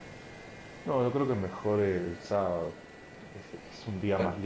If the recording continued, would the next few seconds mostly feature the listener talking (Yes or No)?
No